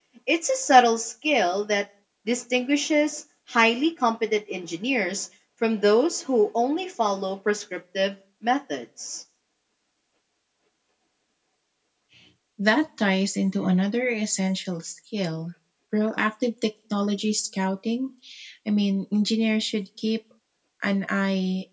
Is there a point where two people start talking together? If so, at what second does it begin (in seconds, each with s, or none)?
none